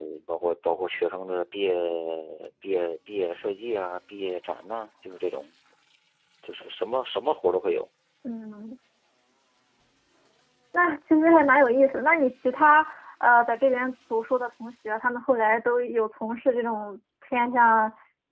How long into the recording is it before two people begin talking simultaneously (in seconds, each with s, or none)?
none